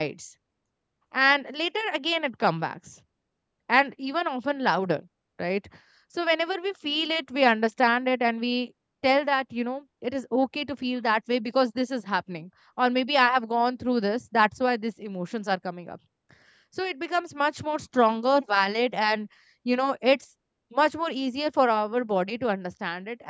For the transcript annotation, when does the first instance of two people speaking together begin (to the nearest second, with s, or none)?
none